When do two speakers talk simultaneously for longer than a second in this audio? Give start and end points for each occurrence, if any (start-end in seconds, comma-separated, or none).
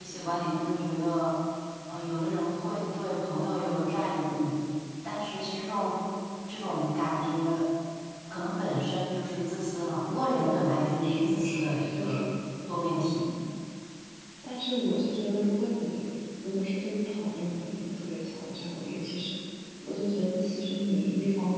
11.0-12.2